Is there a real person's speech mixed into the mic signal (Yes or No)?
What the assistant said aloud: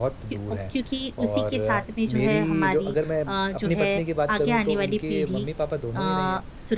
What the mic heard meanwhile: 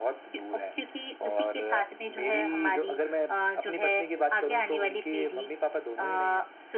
No